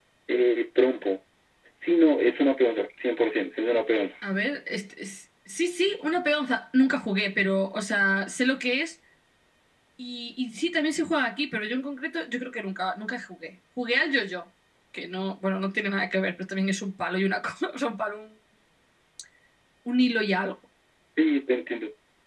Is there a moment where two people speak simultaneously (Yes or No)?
No